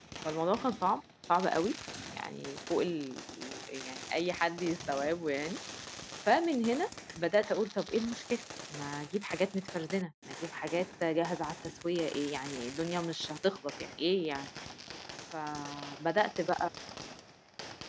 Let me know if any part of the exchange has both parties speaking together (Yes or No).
No